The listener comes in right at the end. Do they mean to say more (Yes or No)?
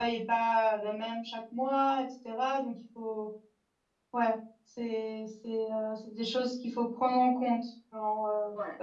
No